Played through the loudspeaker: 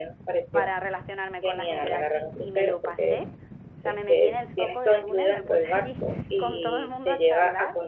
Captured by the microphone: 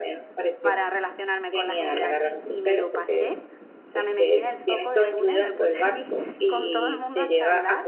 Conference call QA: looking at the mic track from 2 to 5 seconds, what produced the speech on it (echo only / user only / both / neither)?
echo only